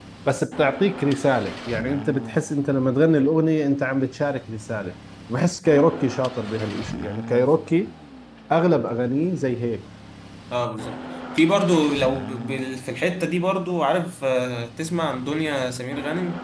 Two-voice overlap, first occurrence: none

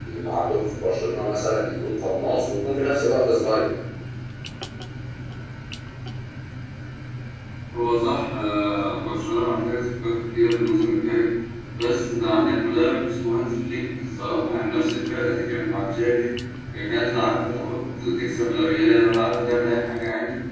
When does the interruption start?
none

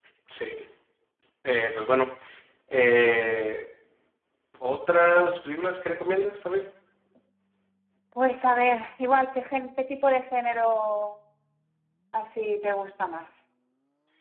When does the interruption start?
none

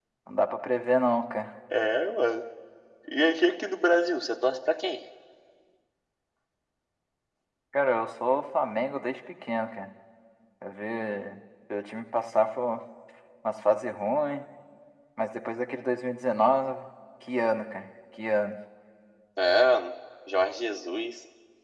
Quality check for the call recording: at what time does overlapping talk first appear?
none

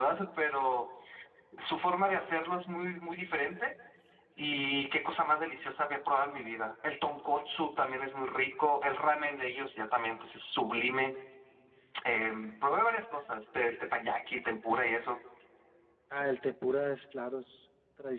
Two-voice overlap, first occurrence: none

